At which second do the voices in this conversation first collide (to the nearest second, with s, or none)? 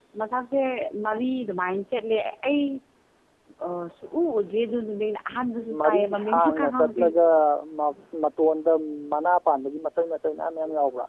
6 s